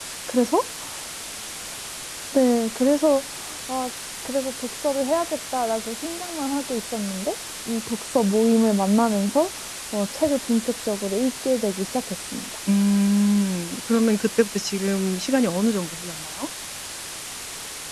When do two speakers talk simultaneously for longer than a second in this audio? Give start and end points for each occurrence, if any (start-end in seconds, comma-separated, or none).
none